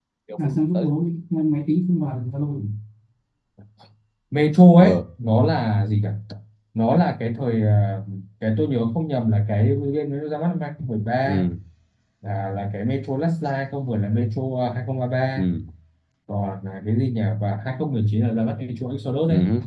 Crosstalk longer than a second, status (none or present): none